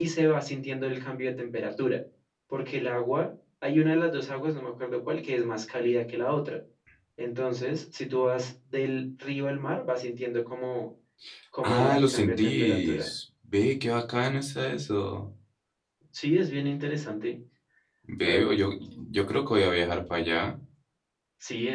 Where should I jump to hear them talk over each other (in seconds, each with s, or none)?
11.6 s